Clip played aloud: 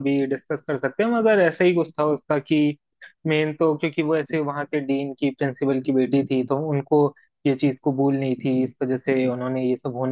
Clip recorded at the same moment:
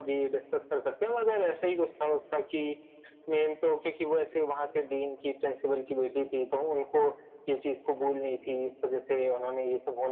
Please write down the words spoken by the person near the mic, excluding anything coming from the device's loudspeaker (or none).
none